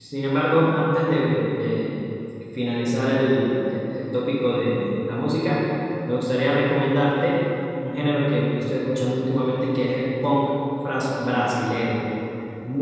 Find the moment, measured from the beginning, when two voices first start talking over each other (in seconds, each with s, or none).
none